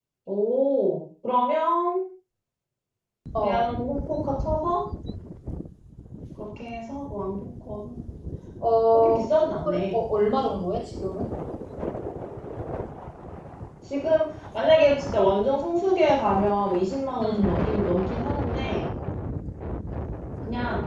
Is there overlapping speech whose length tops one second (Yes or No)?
No